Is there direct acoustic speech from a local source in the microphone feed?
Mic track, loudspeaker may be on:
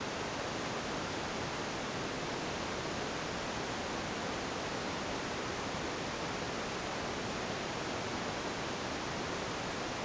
No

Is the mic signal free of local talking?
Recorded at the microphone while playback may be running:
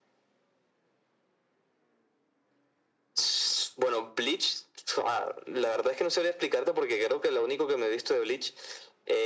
Yes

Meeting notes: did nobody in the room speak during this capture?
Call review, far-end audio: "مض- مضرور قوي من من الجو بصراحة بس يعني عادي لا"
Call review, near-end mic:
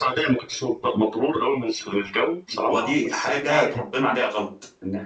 No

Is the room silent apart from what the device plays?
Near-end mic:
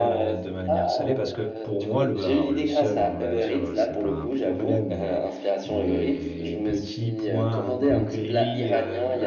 No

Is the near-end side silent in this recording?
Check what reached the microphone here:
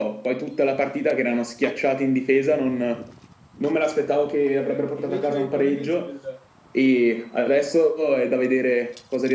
No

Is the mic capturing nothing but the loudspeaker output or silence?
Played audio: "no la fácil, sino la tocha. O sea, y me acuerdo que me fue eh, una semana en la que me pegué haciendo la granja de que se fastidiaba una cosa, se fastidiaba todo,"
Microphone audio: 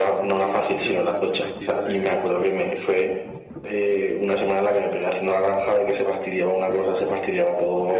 No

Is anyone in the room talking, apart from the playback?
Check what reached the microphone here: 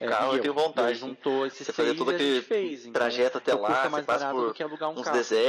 No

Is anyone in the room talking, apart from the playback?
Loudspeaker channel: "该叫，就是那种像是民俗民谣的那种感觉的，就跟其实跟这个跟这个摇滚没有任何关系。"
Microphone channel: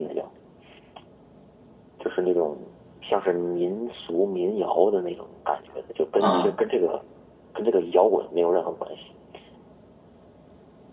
Yes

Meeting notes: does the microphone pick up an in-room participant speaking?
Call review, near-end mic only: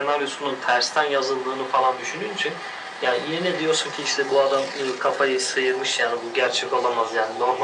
No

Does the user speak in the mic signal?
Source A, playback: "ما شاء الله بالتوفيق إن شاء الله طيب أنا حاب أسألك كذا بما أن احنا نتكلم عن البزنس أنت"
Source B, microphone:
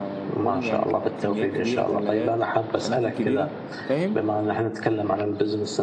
Yes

